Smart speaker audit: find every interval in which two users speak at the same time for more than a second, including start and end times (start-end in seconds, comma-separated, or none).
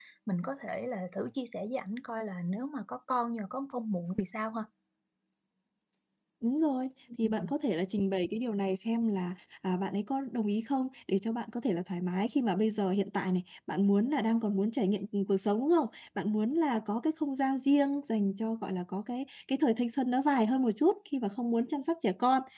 none